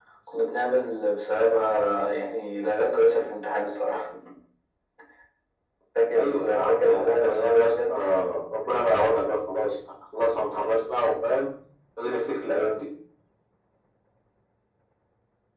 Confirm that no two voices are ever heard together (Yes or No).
No